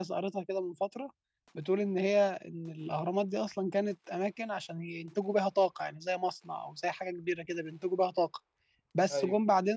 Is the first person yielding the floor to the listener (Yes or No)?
No